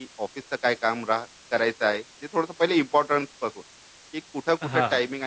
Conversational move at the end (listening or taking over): listening